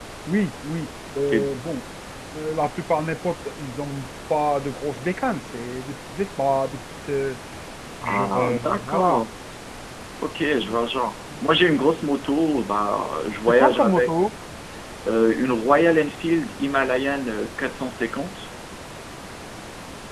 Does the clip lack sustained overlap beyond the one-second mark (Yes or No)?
No